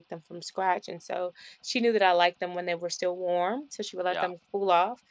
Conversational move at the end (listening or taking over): listening